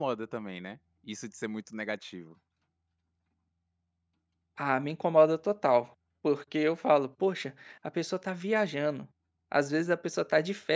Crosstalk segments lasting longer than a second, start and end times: none

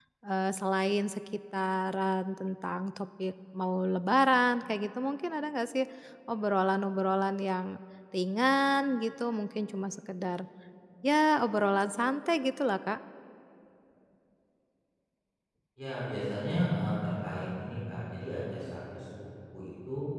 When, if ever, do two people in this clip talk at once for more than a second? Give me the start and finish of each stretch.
none

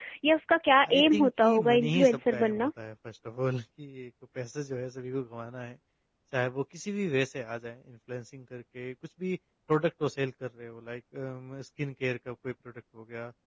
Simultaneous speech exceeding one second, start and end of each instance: 0.9-2.7

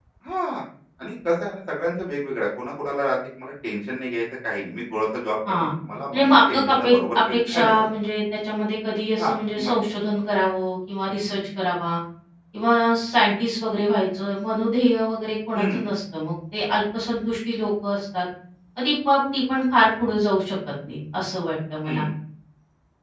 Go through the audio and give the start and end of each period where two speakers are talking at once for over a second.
6.1-7.8

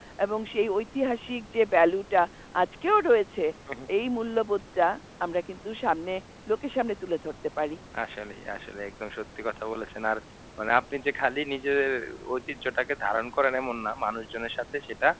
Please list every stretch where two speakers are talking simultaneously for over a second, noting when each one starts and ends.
none

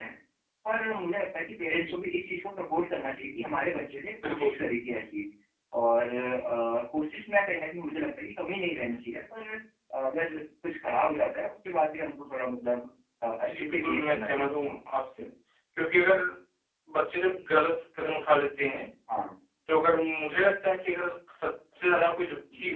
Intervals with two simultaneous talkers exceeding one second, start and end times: 13.4-14.8

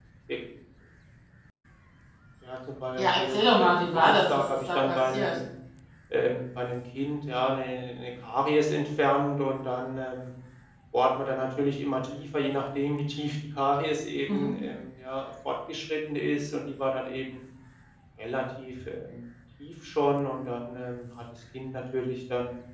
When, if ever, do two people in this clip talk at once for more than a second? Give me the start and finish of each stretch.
3.0-5.4

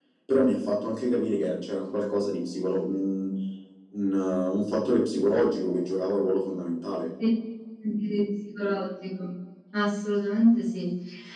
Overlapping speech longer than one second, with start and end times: none

